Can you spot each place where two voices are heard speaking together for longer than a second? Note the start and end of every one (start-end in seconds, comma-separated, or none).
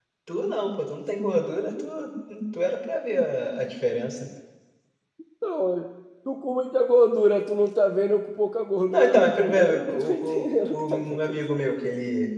8.9-11.4